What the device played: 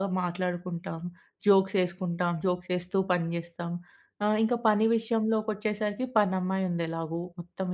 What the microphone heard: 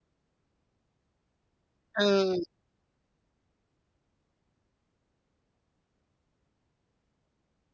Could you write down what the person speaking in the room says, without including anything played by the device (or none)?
ఆ!